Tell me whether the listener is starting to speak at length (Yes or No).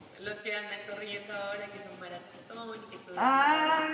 Yes